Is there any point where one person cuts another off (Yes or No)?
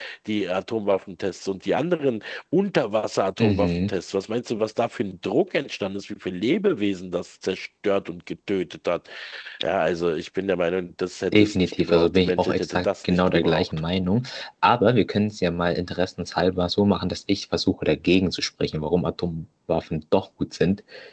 Yes